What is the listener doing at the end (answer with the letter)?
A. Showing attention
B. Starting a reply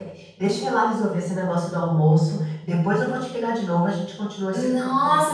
B